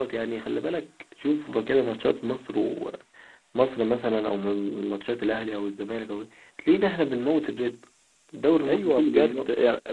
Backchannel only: No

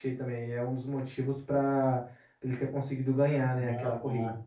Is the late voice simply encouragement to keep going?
No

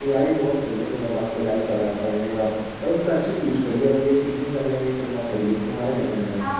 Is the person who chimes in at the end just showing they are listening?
No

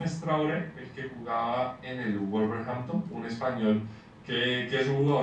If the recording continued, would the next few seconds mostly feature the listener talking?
No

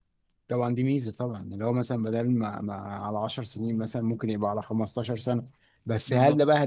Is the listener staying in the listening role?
Yes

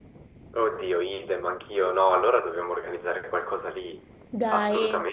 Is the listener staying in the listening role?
No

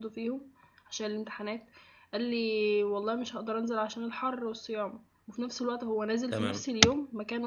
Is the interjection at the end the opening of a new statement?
No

